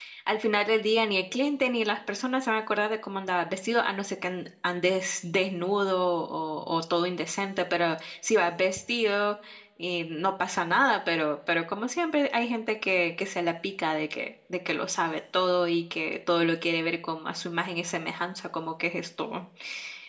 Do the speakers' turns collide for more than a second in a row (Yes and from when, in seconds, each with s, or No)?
No